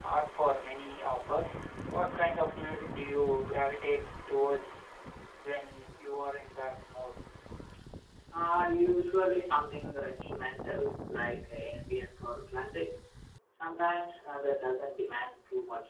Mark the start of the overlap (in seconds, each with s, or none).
none